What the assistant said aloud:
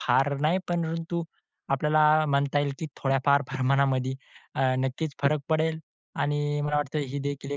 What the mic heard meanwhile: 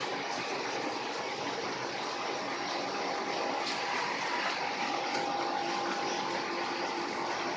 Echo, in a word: none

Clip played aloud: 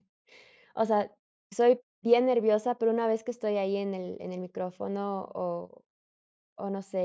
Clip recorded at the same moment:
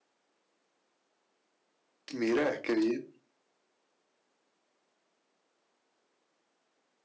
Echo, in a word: none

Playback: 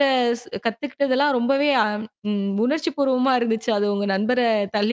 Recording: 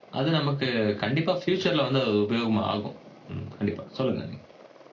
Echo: none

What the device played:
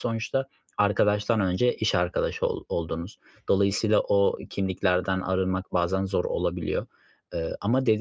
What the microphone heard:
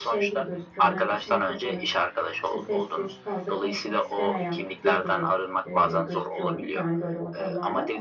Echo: present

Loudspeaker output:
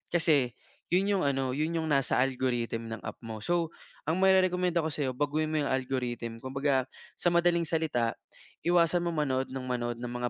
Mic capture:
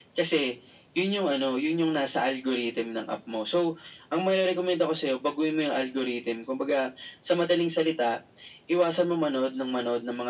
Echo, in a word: present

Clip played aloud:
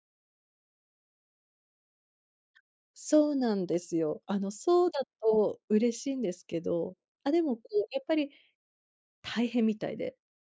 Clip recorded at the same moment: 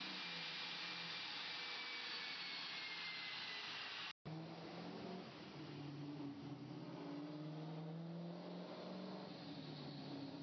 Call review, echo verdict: none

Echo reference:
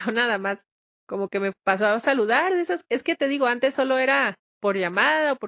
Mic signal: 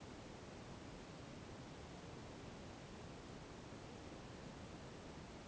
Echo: none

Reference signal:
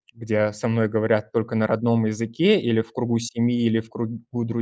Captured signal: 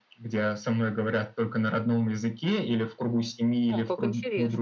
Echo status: present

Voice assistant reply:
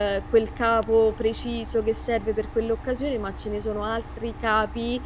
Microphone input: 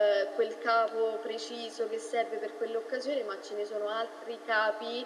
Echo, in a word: present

